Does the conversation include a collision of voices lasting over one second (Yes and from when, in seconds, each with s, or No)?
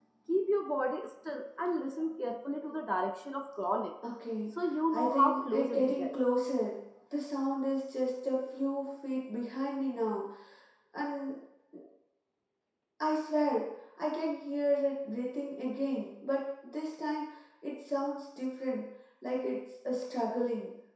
Yes, from 4.9 s